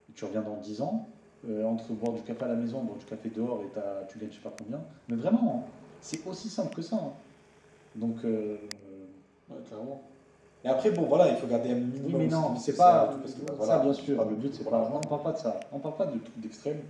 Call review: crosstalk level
present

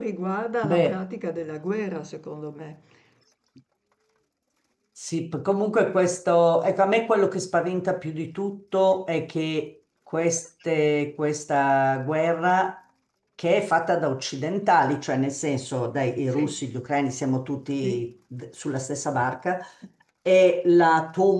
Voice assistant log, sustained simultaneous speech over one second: none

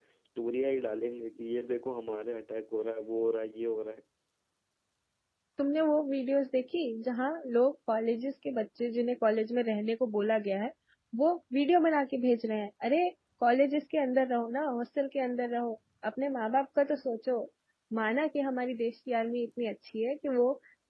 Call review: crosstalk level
none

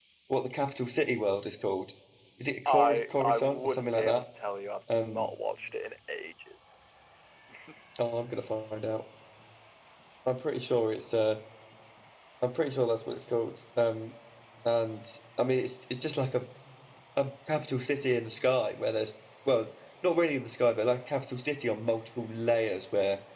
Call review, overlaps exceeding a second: present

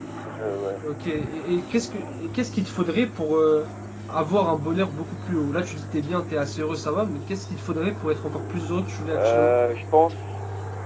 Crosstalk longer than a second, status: none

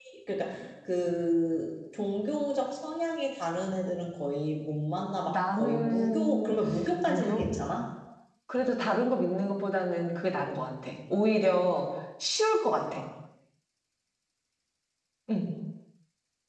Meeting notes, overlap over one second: present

